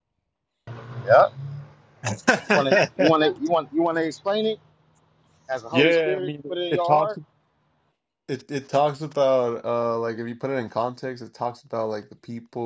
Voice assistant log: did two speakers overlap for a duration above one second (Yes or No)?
Yes